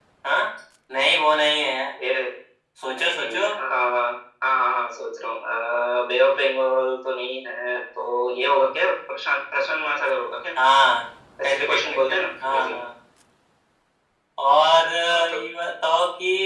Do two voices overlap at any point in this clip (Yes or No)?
Yes